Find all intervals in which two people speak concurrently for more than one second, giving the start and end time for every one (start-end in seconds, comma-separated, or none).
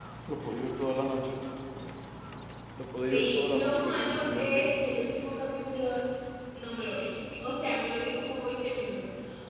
3.0-4.7